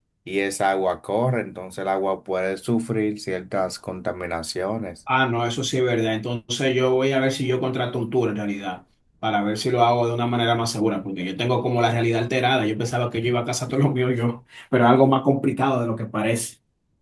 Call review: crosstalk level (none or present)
none